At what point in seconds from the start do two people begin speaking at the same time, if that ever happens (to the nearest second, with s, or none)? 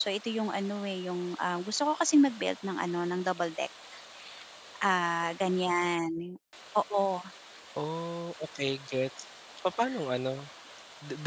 none